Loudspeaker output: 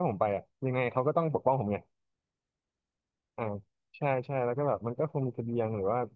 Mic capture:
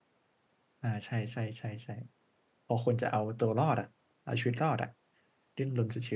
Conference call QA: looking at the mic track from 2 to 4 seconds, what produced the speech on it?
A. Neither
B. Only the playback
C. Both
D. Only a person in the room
D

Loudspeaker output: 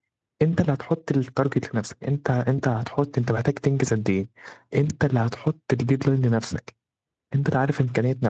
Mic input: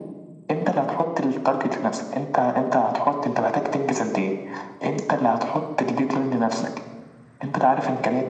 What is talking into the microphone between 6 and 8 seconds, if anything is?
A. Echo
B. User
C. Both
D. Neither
A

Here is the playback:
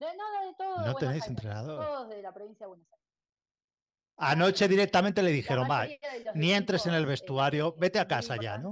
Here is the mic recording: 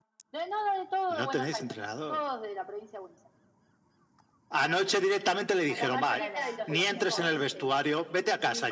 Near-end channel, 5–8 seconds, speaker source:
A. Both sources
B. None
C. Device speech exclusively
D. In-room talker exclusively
A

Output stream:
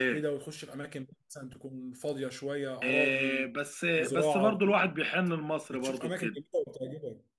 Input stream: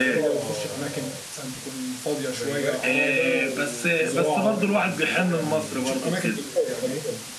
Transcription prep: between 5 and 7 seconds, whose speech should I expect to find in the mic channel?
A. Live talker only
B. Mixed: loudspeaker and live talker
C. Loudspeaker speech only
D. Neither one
B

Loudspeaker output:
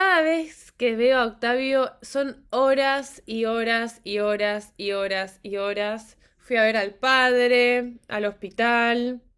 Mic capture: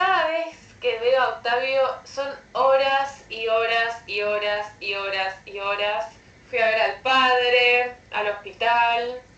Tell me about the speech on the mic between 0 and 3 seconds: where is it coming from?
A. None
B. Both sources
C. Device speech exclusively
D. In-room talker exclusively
C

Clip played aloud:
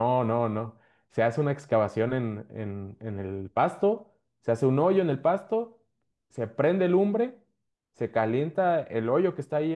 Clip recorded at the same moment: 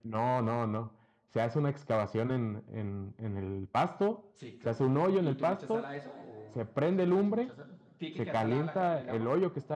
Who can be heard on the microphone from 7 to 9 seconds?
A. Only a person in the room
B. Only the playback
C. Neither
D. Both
D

